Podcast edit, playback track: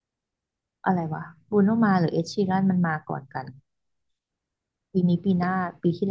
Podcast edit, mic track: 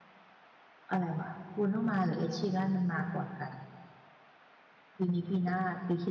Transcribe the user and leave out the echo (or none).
none